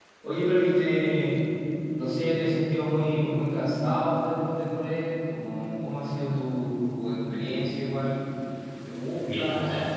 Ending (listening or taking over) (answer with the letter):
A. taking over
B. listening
A